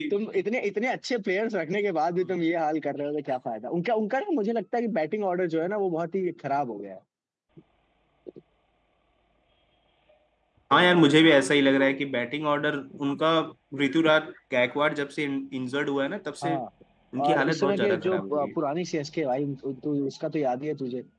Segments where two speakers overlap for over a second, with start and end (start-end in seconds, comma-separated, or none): 17.2-18.5